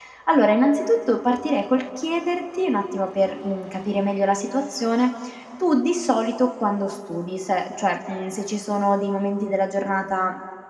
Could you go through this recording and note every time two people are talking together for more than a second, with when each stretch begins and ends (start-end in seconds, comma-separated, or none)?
none